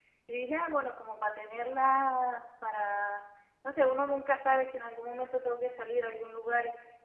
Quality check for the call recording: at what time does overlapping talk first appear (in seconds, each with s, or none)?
none